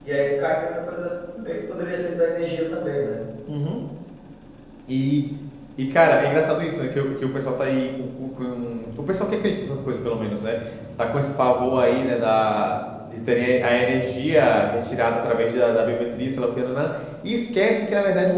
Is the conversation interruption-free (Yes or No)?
Yes